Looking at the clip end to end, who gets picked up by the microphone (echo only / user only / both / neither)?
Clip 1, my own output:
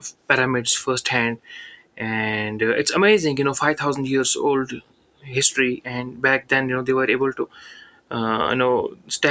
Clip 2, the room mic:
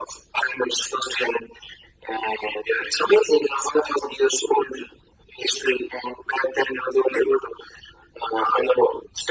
echo only